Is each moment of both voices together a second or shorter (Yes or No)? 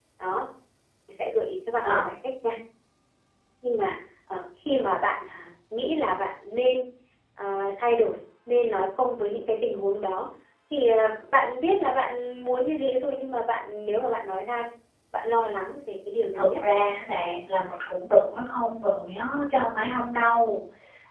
Yes